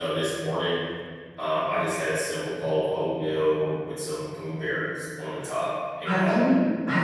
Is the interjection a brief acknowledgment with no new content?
No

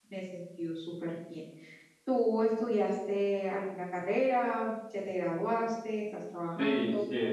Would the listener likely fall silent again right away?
No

